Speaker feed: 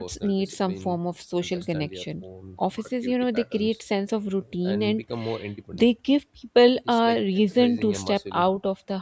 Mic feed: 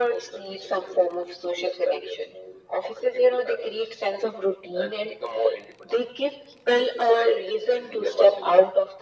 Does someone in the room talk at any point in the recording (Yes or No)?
No